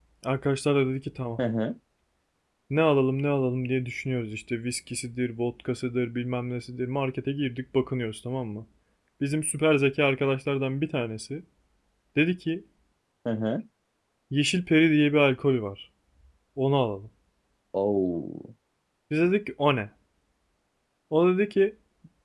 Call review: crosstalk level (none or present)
none